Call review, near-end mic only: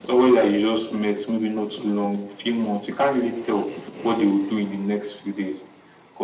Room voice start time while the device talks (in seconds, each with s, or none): none